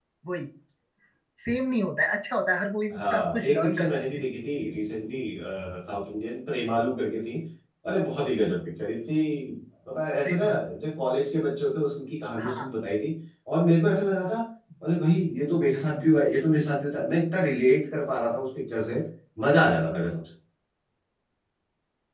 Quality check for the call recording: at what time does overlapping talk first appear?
2.9 s

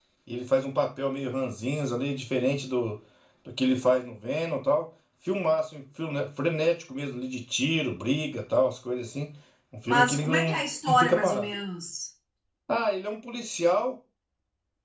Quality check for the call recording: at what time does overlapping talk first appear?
9.8 s

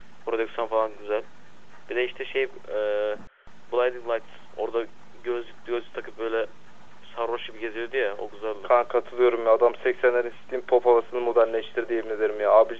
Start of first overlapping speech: none

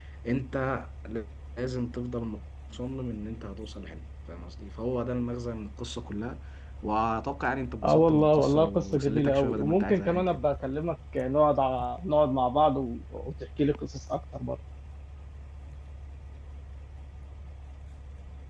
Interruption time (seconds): 7.8 s

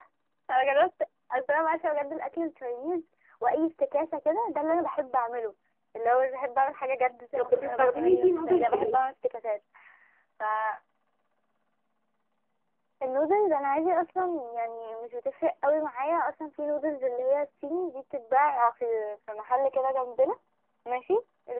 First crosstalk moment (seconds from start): 7.4 s

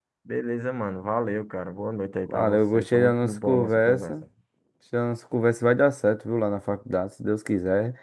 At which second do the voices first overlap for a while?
2.3 s

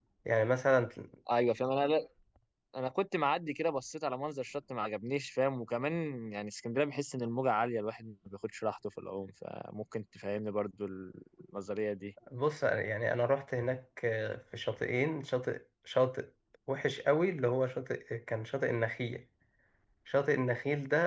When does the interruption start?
none

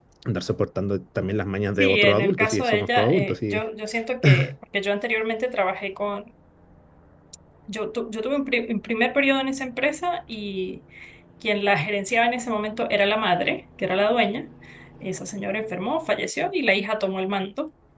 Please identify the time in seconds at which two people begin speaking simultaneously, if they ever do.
1.8 s

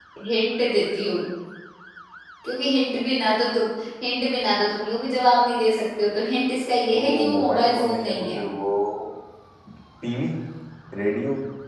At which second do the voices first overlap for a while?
6.9 s

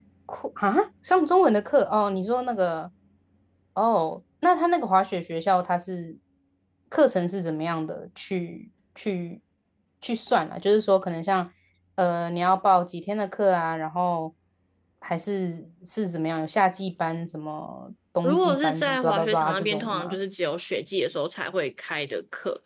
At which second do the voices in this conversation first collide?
18.2 s

